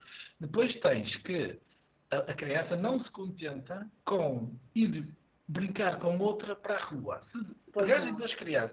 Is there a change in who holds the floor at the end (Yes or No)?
No